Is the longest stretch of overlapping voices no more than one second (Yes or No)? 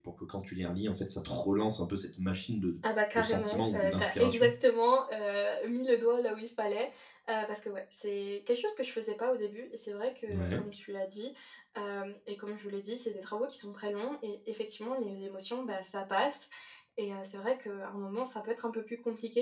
No